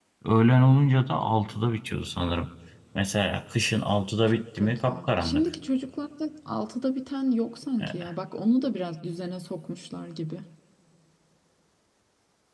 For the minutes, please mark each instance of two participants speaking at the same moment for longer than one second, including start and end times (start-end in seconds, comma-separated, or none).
4.3-5.5